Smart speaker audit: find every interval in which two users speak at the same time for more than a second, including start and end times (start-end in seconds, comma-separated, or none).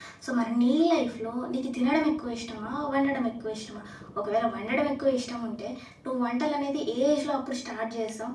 none